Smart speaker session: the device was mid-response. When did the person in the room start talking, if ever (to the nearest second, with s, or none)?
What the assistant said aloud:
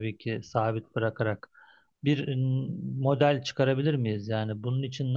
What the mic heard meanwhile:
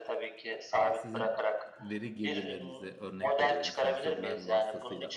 1 s